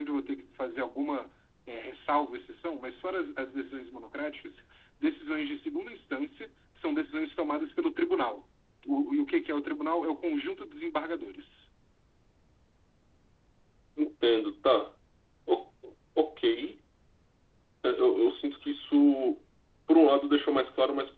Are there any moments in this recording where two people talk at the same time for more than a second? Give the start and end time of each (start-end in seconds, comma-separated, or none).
none